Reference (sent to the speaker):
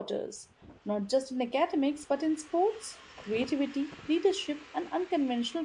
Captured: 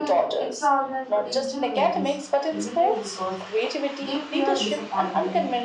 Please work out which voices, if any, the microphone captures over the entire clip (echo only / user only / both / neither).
both